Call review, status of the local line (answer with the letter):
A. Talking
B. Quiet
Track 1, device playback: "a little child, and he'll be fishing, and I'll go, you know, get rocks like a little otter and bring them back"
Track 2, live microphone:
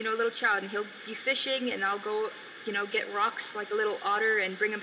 B